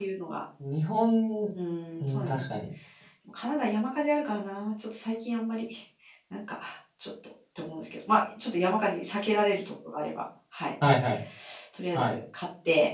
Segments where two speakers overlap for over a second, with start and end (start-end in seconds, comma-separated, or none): none